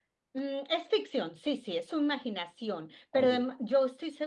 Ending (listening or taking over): listening